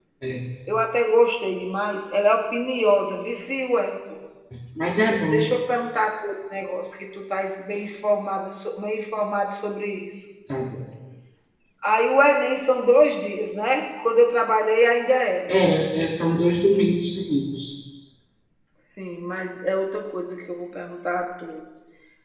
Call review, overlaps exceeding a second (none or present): none